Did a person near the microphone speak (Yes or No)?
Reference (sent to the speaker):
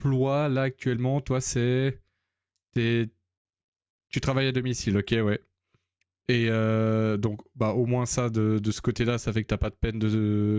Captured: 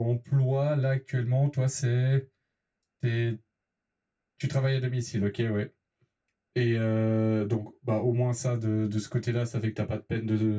No